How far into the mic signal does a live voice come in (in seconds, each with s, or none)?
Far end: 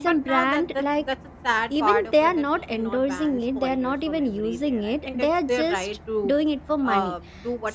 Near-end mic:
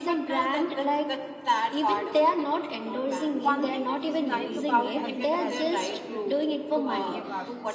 3.4 s